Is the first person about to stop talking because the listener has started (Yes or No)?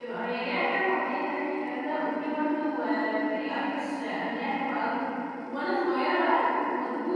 No